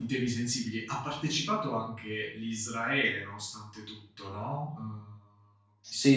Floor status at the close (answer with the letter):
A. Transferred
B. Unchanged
A